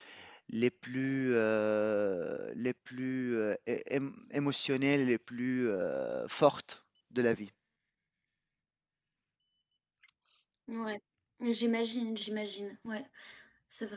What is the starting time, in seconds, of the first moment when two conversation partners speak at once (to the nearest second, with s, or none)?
none